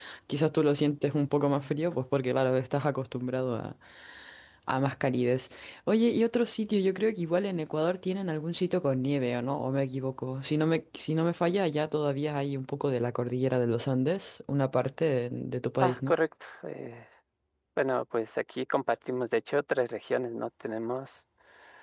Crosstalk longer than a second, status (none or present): none